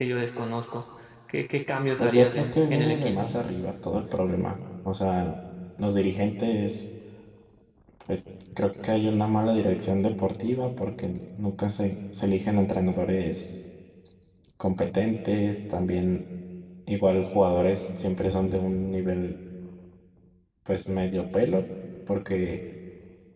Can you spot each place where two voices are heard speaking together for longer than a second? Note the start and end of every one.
2.0-3.3

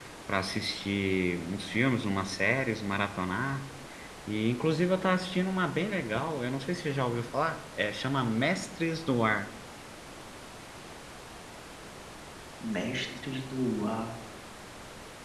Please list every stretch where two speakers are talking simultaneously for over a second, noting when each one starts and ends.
none

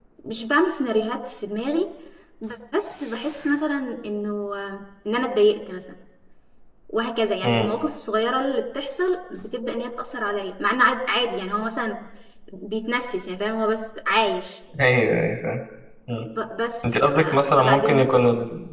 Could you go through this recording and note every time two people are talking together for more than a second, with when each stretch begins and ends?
16.8-18.1

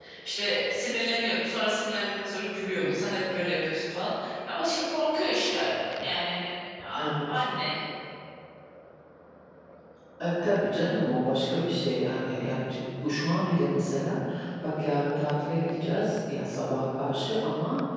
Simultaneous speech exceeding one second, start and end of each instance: none

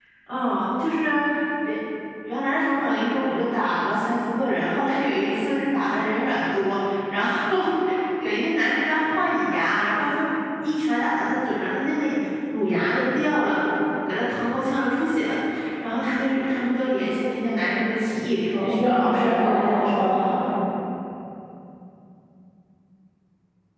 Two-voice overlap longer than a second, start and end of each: 18.5-20.2

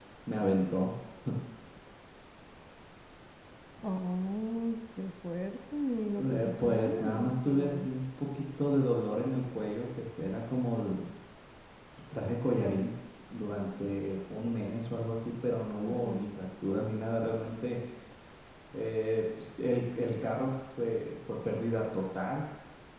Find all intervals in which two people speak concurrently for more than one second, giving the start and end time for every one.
6.2-7.9

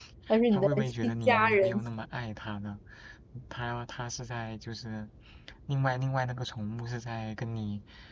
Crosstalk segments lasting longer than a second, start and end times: 0.5-1.8

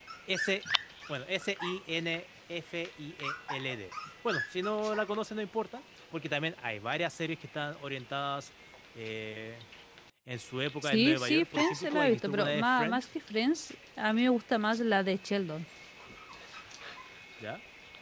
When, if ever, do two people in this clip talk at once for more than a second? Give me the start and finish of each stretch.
10.8-13.1

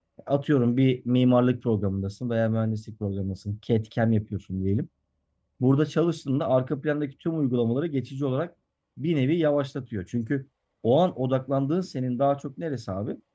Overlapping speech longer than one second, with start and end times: none

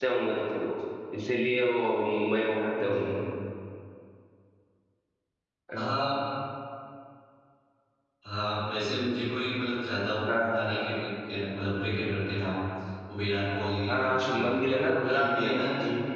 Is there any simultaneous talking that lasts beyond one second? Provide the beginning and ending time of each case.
13.9-15.7

